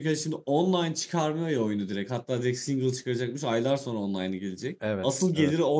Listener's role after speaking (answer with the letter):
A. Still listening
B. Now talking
A